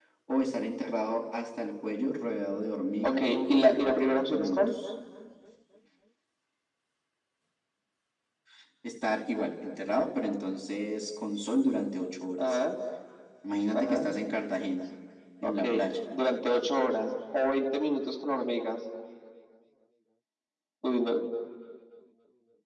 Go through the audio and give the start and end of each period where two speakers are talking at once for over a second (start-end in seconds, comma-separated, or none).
3.0-4.6